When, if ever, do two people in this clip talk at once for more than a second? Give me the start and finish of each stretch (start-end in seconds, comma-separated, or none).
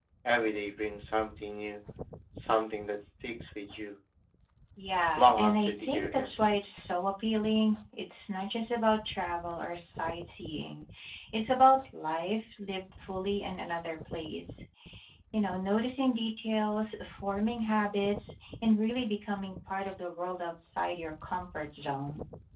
5.2-6.6